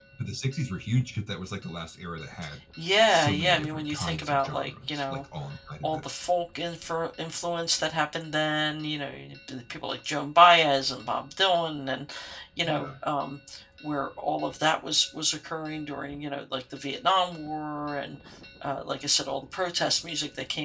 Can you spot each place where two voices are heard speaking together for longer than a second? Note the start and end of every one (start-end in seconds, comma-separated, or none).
3.1-5.2